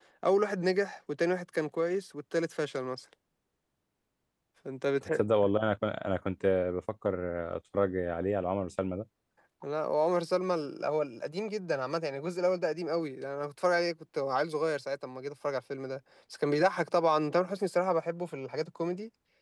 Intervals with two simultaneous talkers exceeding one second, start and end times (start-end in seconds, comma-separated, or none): none